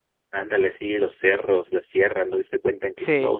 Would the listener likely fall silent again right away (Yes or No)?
Yes